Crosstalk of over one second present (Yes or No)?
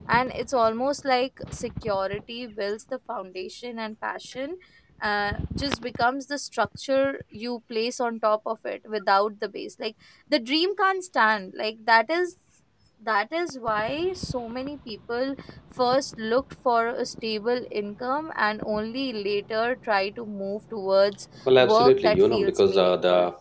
Yes